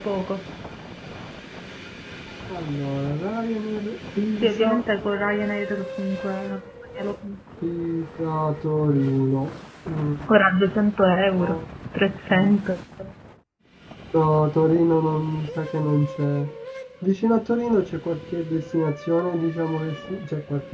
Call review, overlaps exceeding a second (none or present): none